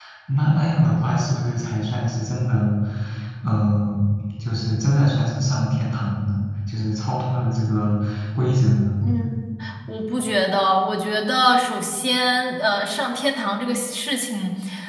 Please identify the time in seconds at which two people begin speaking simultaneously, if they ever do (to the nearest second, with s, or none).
none